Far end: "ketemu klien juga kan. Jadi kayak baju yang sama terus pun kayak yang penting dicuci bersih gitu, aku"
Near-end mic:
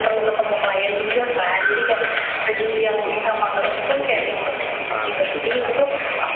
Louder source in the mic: echo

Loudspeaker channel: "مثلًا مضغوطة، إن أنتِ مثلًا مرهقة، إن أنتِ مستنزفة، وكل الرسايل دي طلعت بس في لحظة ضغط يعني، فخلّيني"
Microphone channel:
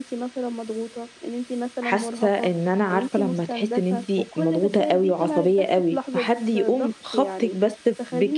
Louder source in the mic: user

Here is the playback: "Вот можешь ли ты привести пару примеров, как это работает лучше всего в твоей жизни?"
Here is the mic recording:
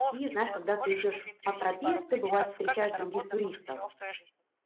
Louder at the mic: user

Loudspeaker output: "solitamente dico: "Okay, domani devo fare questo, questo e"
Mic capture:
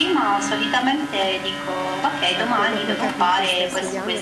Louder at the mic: echo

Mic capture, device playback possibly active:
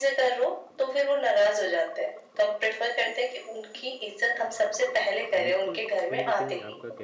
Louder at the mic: echo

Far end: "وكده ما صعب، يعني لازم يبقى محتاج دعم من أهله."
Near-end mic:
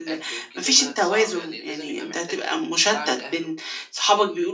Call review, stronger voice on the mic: user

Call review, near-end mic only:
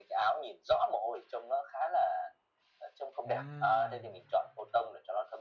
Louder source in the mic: echo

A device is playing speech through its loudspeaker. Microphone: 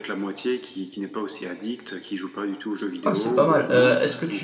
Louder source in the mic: user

